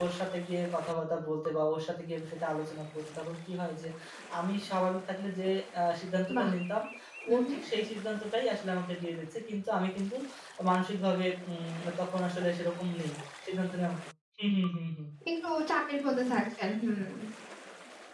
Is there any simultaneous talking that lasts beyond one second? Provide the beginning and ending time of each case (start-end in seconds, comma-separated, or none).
none